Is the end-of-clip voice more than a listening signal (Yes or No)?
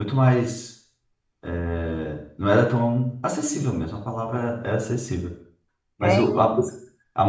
No